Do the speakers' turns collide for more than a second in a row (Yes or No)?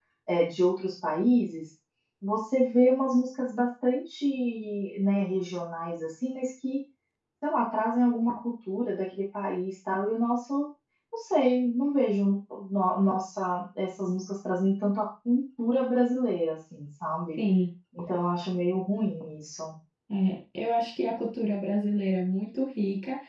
No